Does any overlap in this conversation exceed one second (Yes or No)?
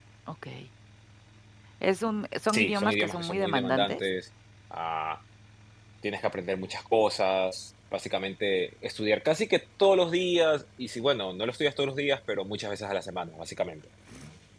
Yes